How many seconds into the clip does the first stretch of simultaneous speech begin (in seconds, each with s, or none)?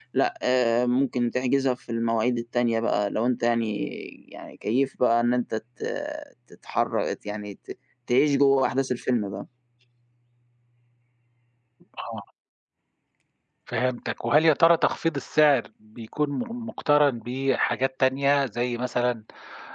none